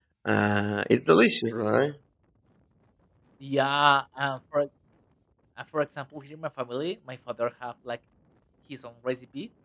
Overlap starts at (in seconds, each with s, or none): none